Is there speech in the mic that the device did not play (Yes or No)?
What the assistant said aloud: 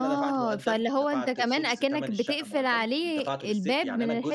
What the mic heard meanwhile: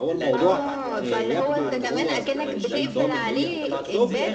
Yes